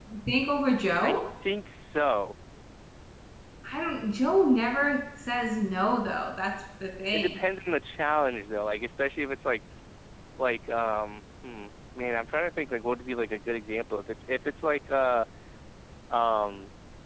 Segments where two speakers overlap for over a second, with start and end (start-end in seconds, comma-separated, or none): none